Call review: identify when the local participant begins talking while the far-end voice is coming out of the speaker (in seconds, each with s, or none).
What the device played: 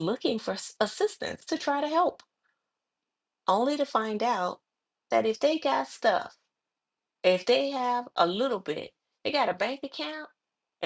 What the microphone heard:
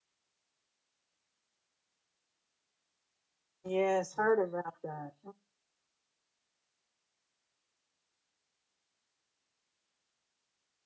3.6 s